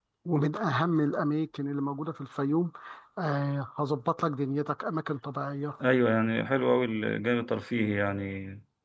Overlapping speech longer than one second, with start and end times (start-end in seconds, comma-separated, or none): none